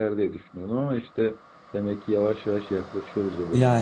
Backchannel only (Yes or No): No